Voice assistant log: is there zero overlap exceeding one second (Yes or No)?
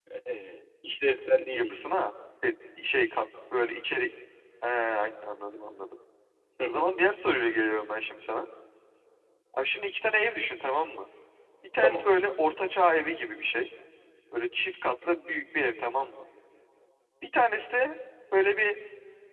Yes